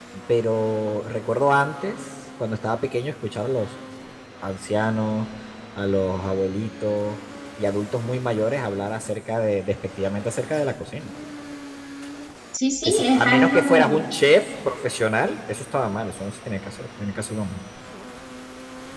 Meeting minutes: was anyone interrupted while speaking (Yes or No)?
Yes